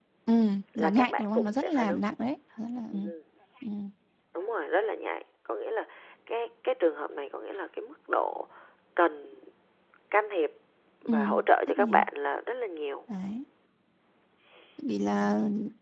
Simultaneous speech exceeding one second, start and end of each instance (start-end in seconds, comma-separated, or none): 0.8-2.0